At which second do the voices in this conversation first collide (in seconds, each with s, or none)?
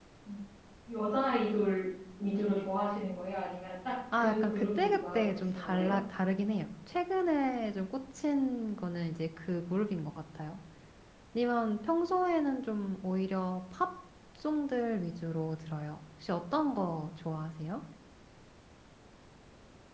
4.1 s